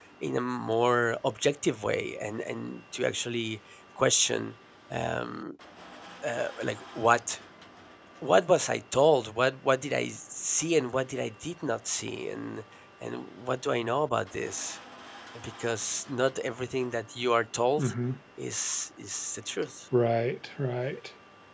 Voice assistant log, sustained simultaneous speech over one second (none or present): none